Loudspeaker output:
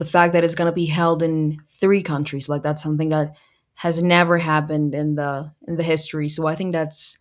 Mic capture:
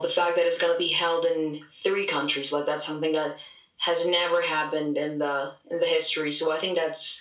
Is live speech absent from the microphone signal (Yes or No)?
Yes